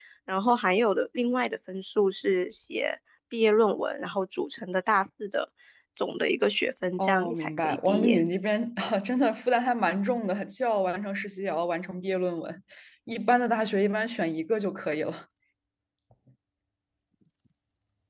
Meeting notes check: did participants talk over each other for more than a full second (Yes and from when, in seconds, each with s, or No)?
Yes, from 7.0 s